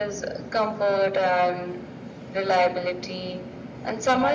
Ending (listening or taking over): listening